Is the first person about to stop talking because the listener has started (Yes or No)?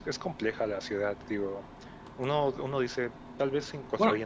No